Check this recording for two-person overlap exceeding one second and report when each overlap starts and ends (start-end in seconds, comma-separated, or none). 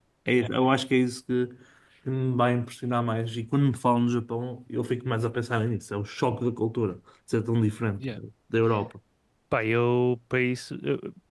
none